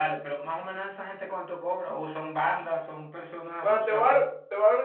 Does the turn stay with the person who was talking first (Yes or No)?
No